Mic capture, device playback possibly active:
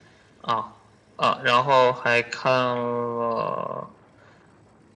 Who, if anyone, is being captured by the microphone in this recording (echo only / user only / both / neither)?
echo only